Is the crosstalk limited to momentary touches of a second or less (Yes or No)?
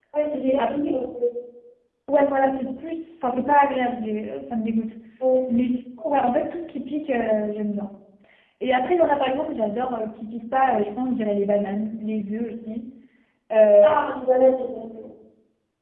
Yes